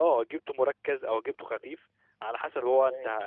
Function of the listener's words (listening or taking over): listening